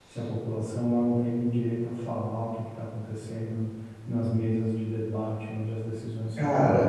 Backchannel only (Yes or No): No